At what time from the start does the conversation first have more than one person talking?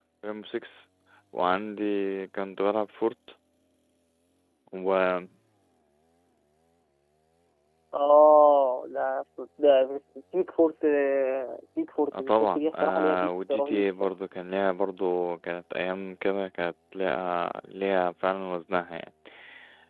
12.1 s

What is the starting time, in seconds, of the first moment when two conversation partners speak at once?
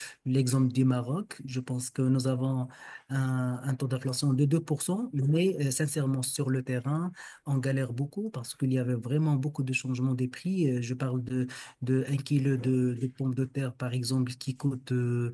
none

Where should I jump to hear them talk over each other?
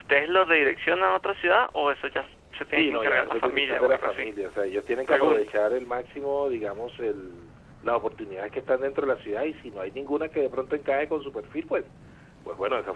2.6 s

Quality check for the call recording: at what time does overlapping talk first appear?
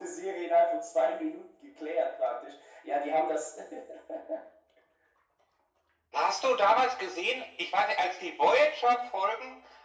none

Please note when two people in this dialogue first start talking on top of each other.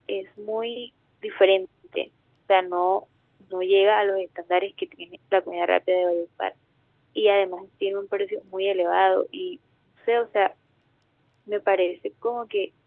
none

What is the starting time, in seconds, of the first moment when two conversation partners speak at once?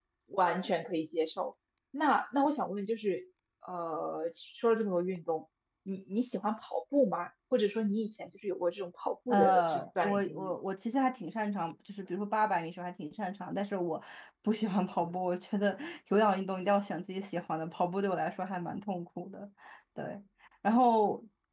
9.3 s

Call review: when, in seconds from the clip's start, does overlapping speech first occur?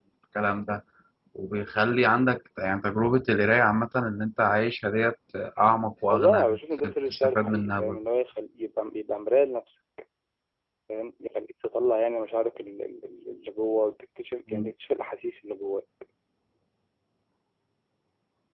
6.1 s

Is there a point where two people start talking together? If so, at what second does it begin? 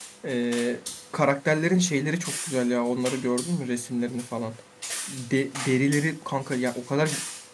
none

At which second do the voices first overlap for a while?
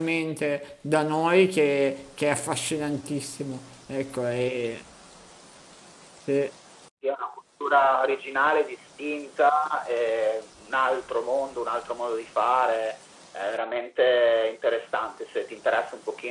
none

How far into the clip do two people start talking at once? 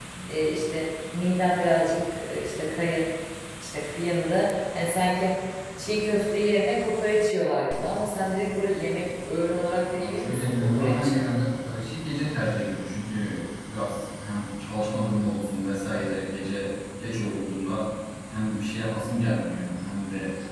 9.9 s

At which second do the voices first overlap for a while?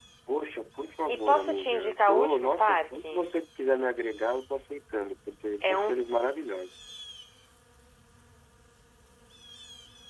1.1 s

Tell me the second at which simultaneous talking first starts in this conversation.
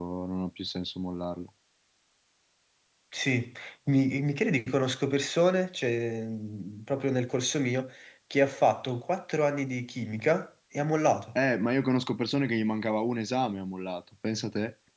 none

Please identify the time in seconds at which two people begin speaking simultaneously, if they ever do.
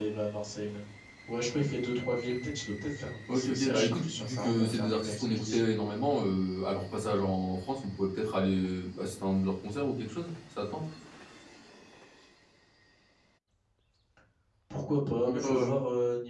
3.3 s

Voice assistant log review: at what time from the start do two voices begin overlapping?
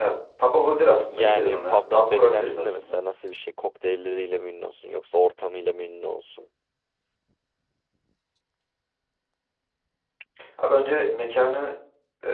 1.1 s

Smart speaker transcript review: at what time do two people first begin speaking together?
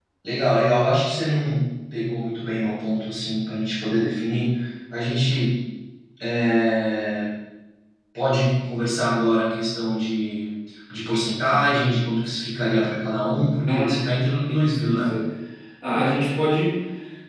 13.7 s

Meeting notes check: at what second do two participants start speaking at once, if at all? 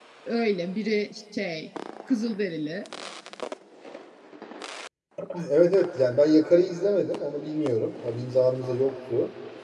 none

